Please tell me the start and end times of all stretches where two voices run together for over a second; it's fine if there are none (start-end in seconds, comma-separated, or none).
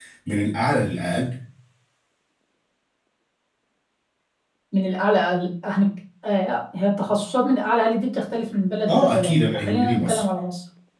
8.9-10.2